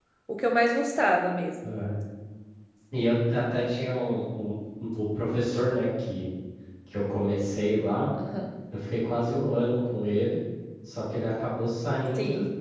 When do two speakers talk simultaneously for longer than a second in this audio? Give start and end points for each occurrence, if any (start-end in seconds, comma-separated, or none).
none